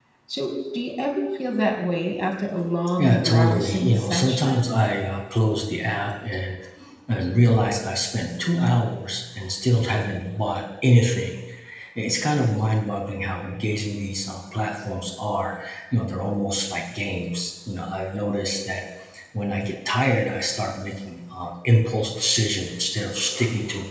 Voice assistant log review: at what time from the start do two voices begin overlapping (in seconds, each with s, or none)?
3.0 s